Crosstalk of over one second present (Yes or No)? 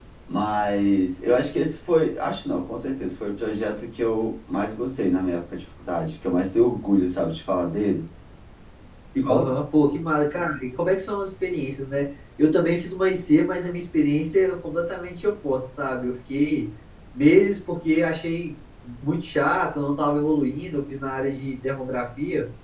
No